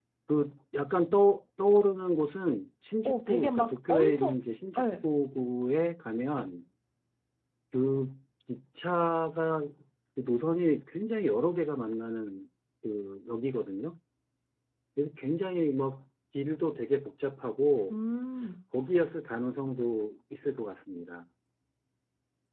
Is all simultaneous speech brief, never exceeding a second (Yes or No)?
No